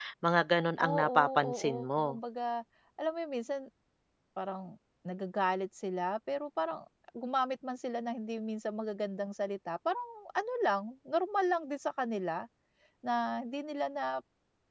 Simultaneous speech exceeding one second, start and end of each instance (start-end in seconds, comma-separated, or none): 0.8-2.0